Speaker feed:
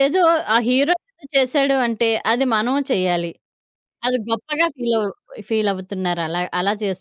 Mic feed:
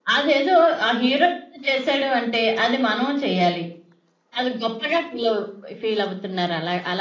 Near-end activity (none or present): none